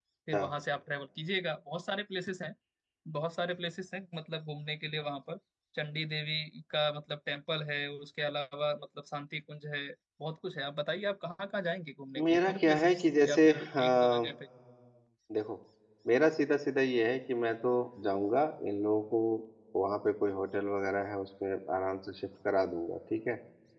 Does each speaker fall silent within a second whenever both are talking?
No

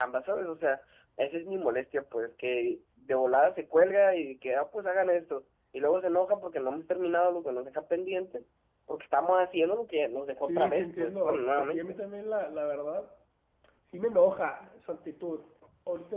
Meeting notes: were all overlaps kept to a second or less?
No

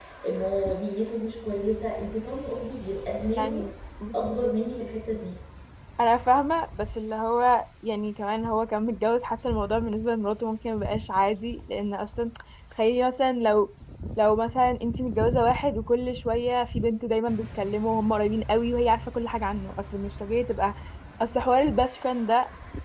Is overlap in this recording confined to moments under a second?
Yes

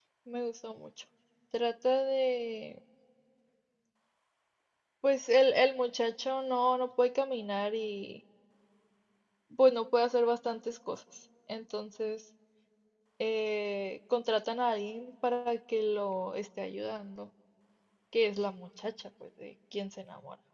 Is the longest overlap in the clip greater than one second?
No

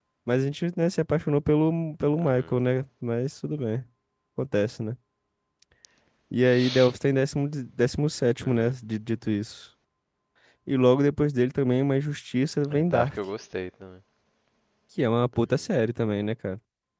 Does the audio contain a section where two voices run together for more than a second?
No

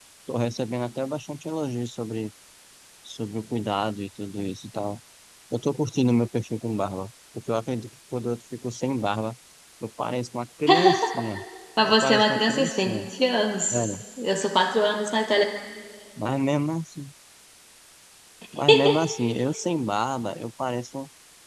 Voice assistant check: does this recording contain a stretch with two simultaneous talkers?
Yes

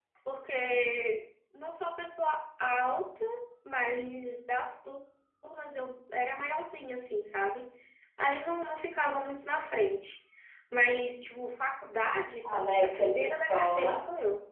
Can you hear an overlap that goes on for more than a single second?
Yes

